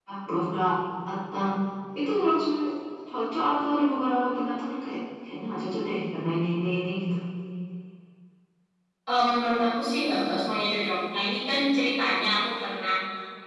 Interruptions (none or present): none